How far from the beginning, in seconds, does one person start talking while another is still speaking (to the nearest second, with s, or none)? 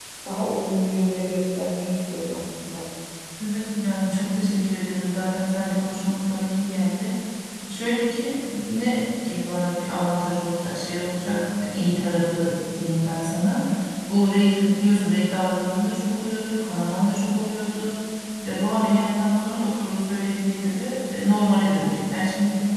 none